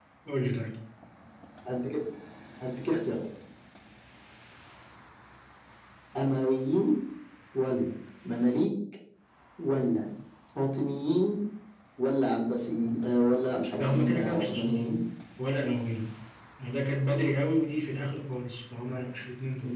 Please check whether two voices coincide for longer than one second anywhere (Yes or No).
Yes